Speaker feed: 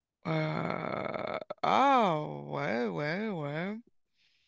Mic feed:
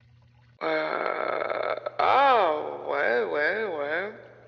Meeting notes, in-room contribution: none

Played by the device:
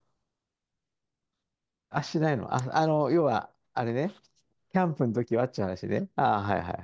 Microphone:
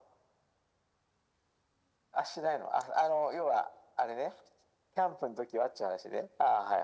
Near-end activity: none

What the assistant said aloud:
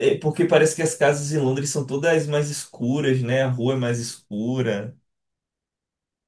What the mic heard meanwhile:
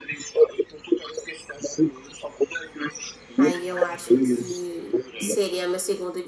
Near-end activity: present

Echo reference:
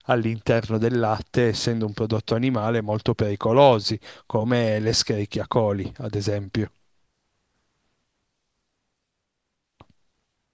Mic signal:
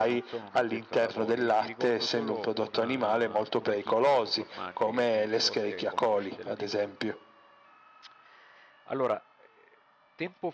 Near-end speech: present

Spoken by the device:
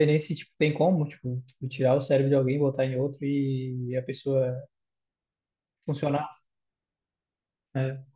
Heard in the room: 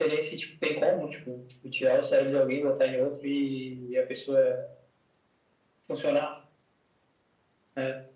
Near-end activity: none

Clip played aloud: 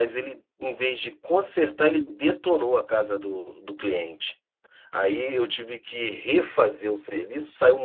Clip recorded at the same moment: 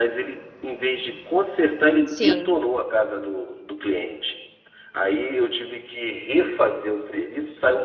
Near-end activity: present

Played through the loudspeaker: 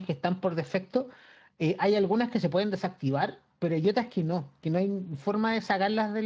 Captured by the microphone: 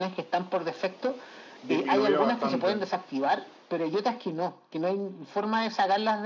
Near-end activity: present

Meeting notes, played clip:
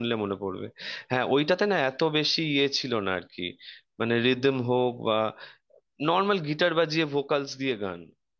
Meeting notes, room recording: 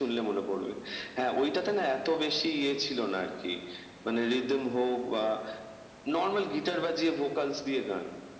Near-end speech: none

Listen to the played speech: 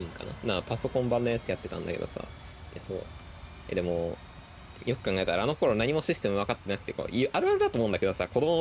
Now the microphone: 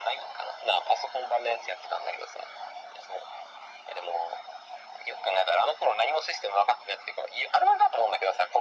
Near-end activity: none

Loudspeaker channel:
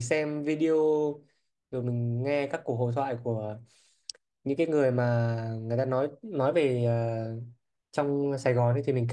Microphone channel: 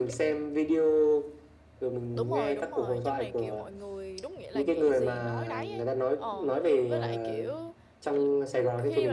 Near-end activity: present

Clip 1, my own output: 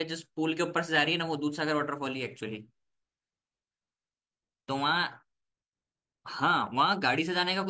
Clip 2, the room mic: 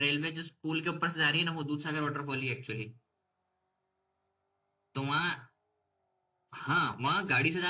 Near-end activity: none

